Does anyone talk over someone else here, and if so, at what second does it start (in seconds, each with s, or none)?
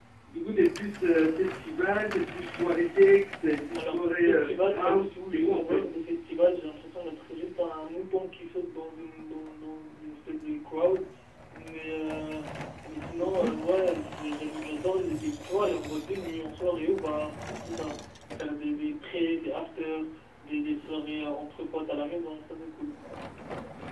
3.7 s